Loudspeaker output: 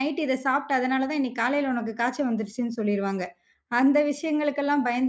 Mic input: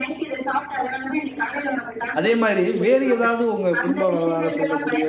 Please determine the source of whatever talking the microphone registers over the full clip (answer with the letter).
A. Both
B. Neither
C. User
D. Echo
A